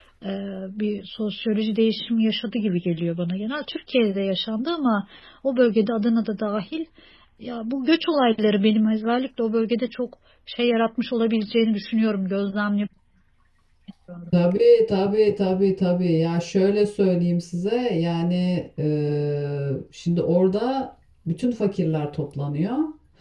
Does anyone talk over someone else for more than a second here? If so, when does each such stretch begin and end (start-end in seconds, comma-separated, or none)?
none